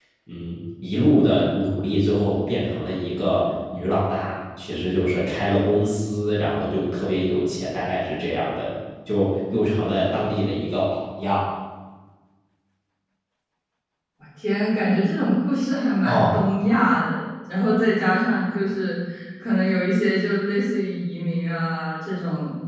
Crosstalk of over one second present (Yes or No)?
No